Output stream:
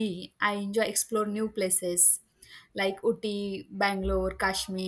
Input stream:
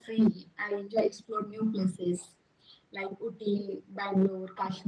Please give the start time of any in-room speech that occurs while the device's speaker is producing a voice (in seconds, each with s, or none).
none